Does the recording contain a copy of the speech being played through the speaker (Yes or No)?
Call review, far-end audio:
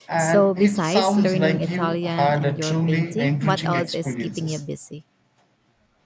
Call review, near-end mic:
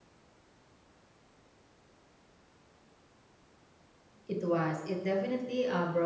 No